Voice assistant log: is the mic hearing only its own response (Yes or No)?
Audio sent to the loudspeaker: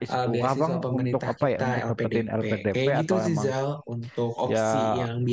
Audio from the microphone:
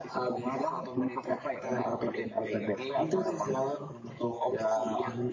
Yes